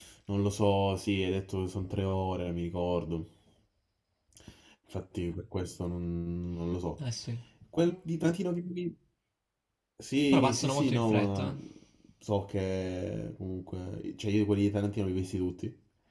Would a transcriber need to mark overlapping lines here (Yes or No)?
Yes